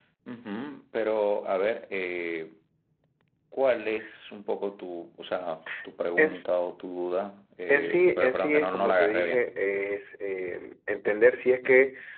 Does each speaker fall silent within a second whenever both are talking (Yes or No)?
No